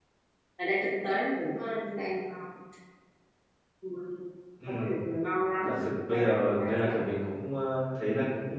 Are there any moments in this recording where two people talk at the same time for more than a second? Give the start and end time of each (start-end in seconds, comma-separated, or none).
5.6-6.9